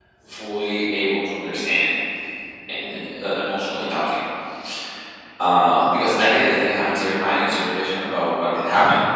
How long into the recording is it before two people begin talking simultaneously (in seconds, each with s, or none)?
none